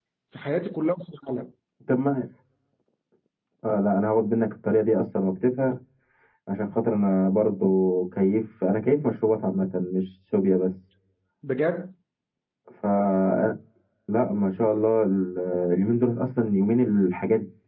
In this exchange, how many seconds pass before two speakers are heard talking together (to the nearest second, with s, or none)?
none